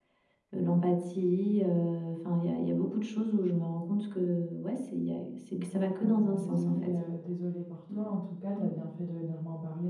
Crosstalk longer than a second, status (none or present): present